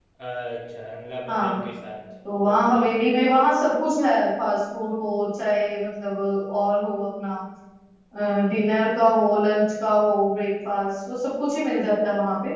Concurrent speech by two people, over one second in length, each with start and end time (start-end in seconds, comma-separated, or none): none